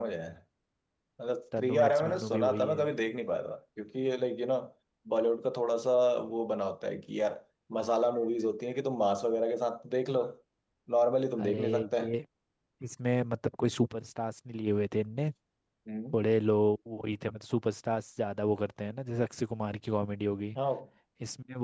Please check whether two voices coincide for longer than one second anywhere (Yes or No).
Yes